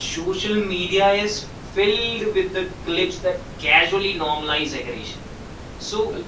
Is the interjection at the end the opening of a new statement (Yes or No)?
No